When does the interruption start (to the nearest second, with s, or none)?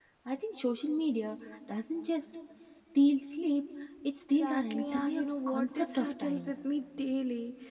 4 s